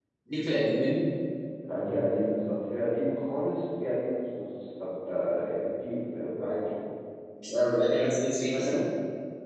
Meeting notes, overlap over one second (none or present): none